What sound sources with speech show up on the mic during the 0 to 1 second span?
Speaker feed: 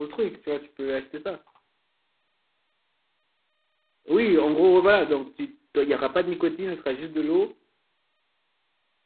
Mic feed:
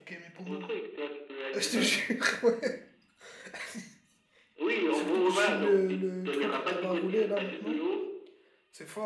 both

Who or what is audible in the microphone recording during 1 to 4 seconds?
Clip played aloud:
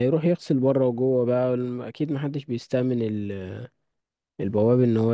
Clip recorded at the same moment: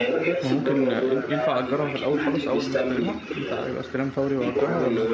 both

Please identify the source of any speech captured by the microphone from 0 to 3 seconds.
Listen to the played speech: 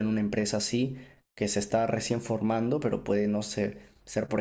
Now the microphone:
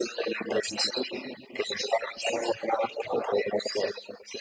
echo only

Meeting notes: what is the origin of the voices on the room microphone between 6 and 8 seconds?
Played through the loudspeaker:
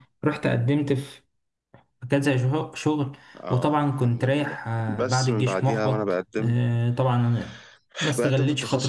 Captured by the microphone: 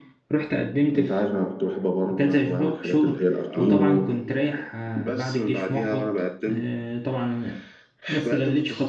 echo only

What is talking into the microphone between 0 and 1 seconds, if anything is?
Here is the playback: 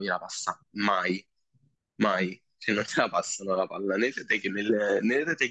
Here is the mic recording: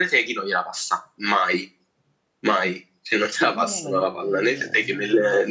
echo only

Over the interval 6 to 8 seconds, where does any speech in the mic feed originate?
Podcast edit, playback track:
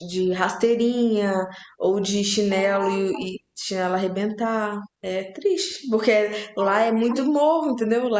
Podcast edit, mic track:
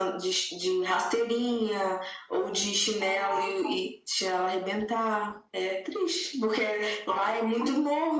echo only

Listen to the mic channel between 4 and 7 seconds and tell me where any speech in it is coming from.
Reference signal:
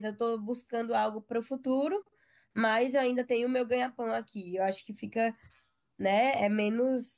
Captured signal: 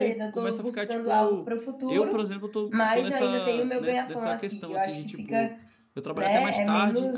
both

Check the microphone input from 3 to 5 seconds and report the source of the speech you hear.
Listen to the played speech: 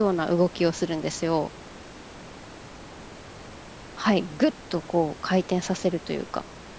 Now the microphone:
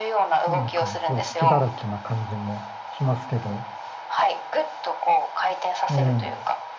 both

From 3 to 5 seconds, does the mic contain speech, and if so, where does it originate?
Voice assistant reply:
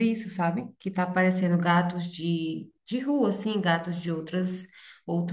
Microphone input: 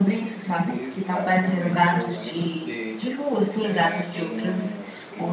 both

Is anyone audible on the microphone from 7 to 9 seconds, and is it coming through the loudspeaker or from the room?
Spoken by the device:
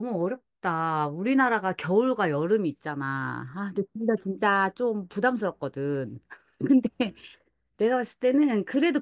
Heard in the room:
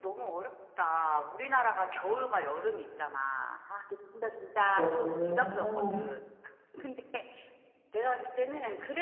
echo only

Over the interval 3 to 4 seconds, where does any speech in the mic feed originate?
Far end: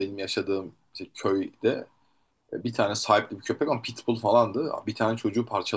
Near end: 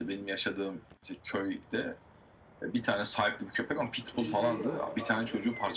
echo only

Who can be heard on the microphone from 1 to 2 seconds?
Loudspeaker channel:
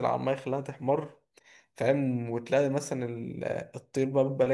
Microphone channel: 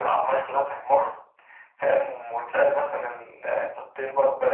echo only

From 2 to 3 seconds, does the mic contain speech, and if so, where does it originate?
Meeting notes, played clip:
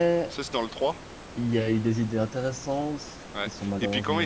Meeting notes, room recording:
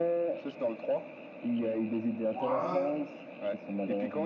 both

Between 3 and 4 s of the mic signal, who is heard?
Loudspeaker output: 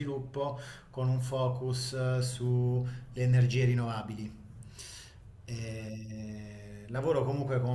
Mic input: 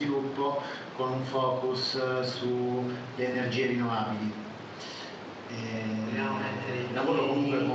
echo only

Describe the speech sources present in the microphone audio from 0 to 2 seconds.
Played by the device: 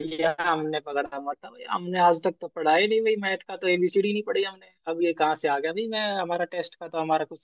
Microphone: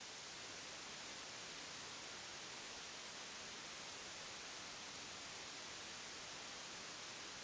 neither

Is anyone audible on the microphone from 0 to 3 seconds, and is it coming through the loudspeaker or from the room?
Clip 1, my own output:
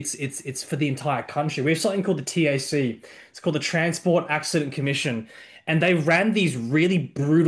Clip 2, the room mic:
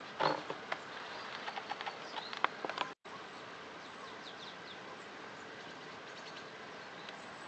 neither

